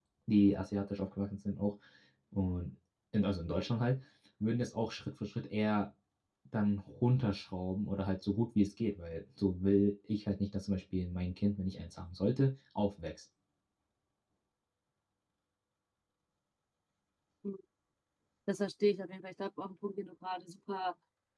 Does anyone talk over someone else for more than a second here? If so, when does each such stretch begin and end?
none

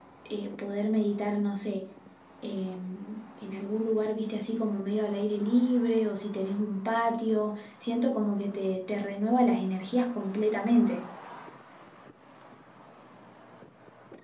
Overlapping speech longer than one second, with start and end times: none

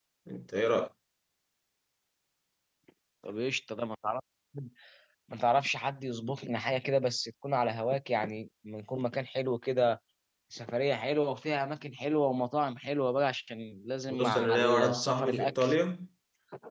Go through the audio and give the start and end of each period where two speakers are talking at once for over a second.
14.1-15.8

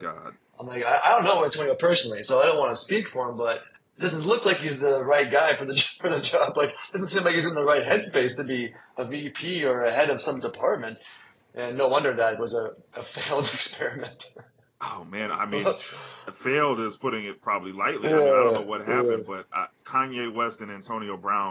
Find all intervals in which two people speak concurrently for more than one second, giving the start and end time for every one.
18.0-19.3

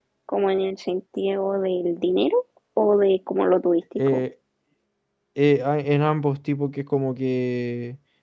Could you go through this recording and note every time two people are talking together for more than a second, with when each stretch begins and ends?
none

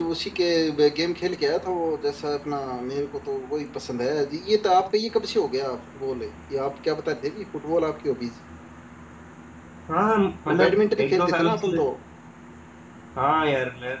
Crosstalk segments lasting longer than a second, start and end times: 10.5-11.8

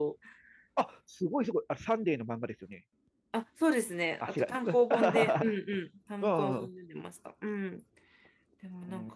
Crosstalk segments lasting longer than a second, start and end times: 4.2-5.5

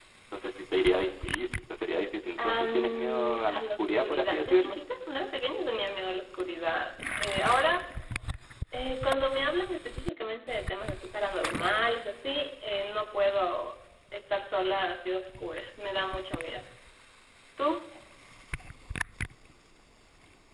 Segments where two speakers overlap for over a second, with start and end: 2.4-4.8

